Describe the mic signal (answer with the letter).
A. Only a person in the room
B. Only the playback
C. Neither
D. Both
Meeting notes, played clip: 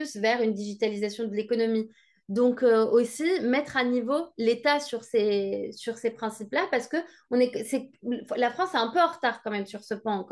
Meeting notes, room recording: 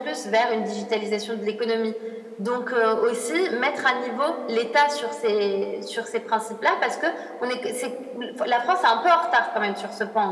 B